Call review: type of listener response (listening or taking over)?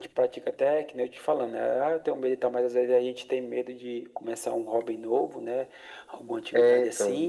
listening